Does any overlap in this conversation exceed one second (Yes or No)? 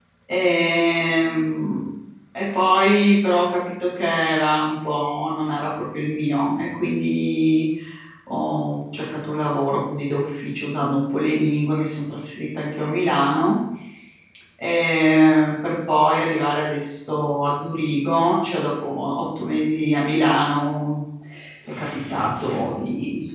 No